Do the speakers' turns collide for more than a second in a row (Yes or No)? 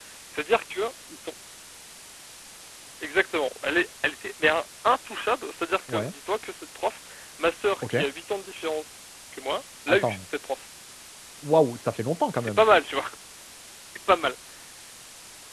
No